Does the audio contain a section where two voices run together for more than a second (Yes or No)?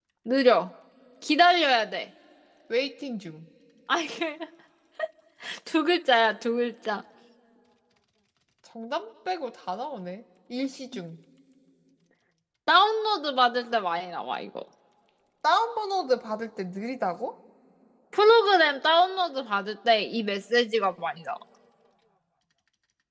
No